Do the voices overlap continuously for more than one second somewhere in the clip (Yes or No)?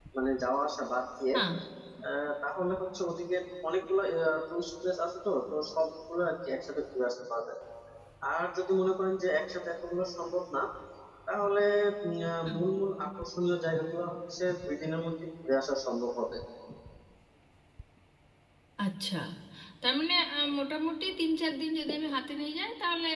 No